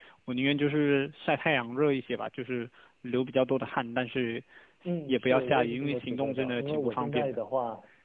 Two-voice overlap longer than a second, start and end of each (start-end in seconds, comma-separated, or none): 5.1-7.4